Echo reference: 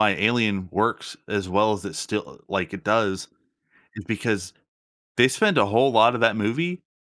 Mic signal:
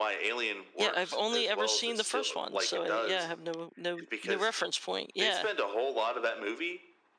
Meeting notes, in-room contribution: present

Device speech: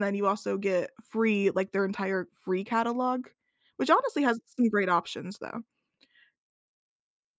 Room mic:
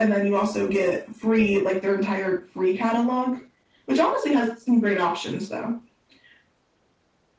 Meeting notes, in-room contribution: none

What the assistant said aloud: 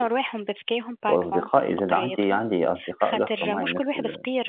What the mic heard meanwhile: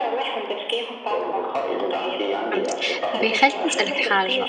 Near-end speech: present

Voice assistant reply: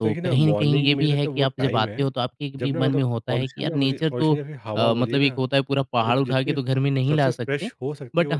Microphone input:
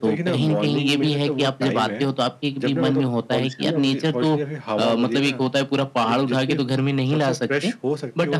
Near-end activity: none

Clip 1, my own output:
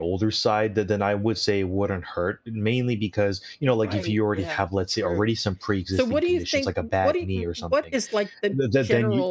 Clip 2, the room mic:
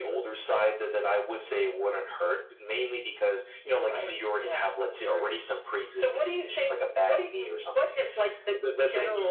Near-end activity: none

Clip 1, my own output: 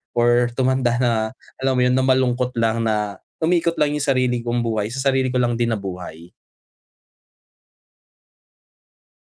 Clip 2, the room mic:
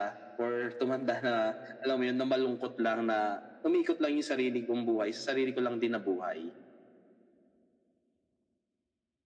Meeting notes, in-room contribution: none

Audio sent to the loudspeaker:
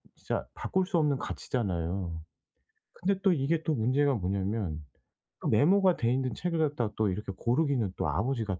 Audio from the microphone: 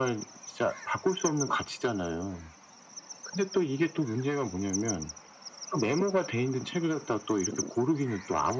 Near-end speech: none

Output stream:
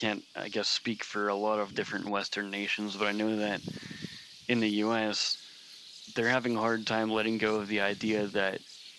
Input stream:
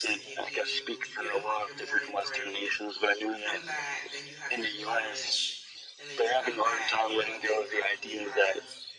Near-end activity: present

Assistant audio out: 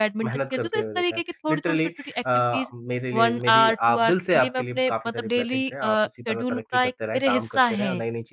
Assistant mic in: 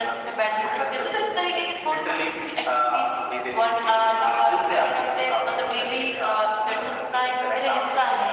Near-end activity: none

